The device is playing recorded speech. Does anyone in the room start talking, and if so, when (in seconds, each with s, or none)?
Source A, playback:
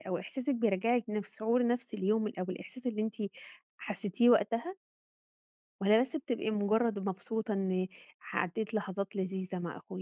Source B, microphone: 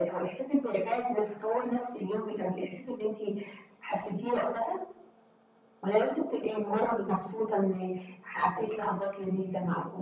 none